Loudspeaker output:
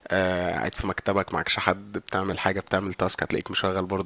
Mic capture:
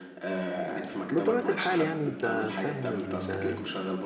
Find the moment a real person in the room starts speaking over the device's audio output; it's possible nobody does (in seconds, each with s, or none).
1.1 s